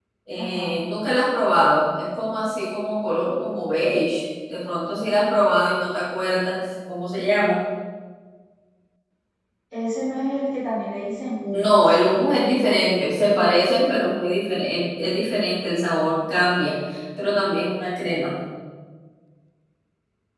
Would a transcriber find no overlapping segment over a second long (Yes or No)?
Yes